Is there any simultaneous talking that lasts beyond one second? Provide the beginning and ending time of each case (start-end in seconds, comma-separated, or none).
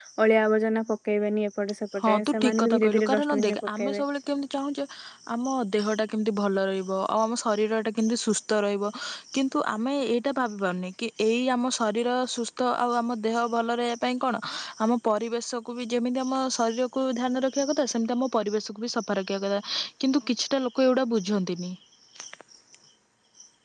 2.0-4.0